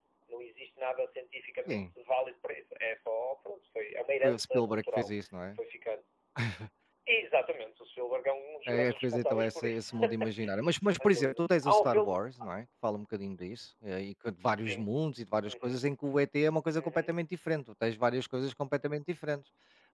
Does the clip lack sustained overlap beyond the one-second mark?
No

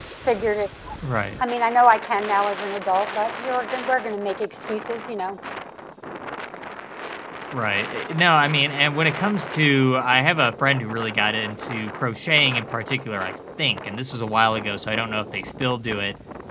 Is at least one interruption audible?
No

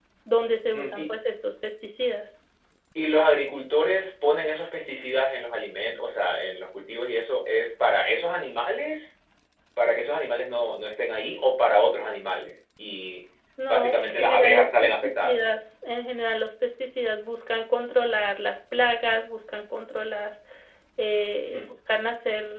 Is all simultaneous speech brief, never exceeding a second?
No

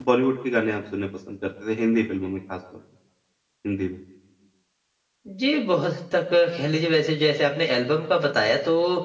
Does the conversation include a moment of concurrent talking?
No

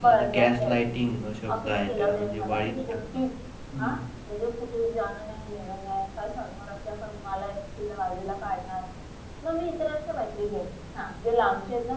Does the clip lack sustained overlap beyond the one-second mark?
No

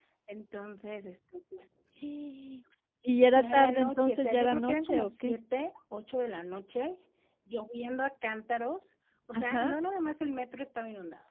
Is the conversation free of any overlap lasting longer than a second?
No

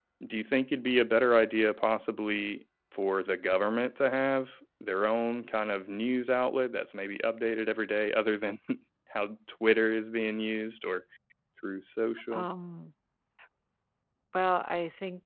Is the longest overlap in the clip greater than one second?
No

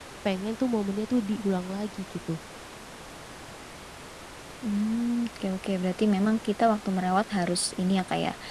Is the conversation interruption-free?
Yes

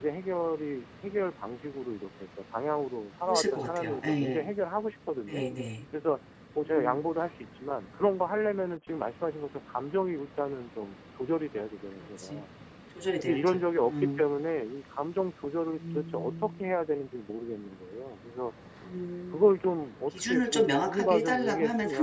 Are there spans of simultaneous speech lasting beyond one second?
Yes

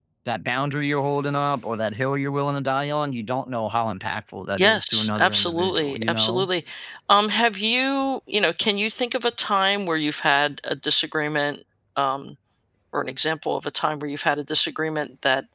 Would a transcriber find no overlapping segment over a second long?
No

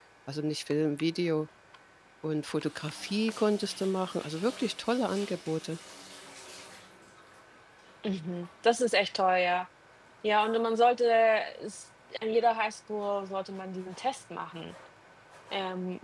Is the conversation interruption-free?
Yes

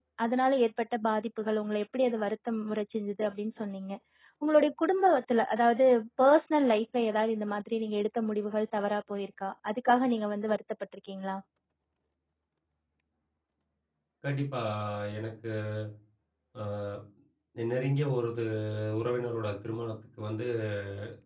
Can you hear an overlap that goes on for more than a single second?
No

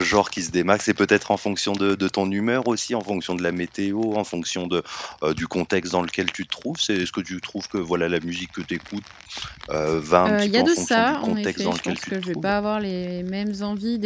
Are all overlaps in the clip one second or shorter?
No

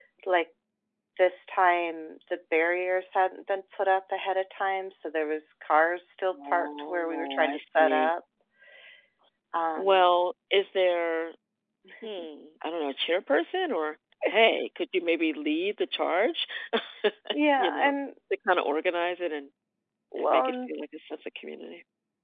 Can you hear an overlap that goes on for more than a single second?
Yes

